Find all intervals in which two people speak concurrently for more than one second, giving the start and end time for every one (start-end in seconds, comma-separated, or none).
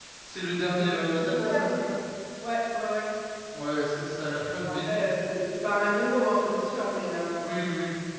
0.6-1.9